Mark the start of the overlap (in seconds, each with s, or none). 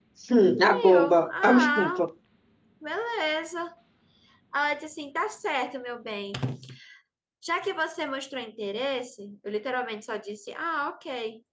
0.7 s